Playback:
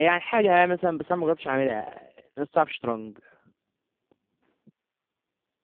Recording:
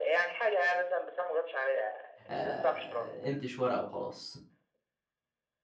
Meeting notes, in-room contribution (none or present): present